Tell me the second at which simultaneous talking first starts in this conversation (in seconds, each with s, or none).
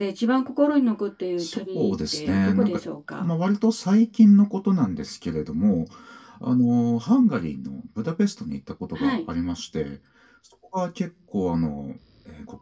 1.4 s